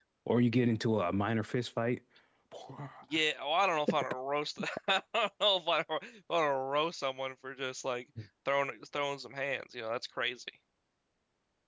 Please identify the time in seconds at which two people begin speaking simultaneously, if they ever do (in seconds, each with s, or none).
none